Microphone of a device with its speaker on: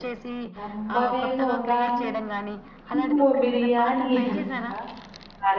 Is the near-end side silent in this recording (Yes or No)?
No